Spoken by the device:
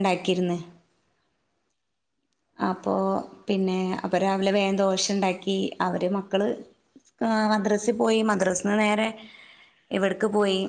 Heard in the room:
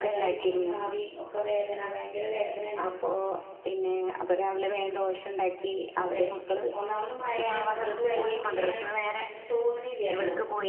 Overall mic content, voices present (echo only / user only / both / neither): both